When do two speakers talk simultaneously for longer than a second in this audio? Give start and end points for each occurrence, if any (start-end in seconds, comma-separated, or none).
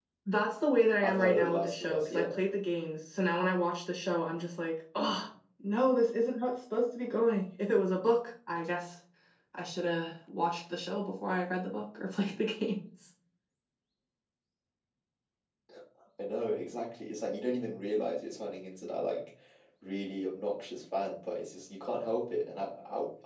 1.0-2.3